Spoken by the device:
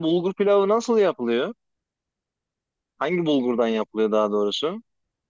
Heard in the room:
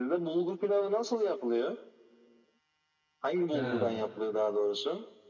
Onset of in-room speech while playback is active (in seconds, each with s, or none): 3.5 s